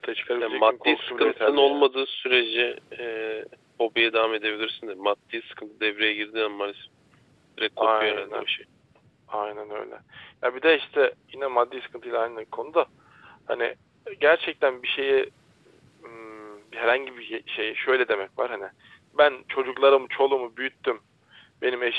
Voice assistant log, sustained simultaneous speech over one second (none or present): present